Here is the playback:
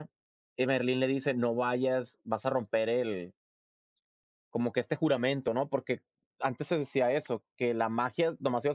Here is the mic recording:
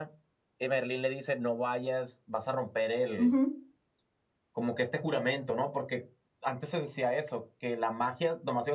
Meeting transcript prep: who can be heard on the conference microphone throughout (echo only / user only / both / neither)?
both